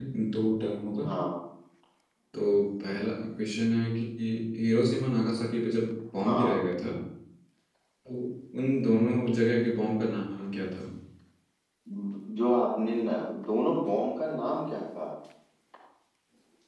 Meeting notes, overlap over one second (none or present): none